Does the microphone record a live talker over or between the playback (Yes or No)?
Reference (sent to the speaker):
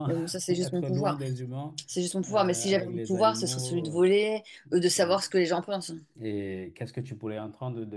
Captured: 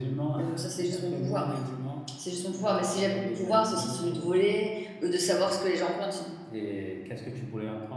No